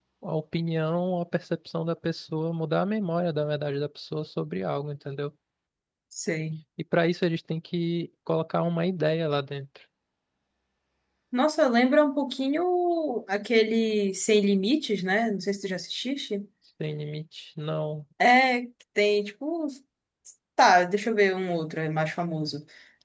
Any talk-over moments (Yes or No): No